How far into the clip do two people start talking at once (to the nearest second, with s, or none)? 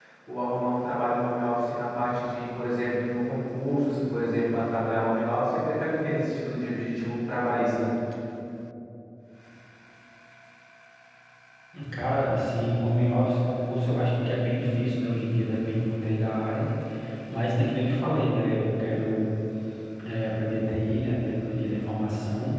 none